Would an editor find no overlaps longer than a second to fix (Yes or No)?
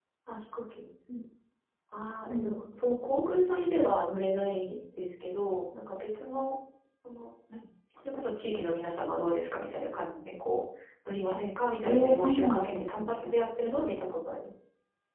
No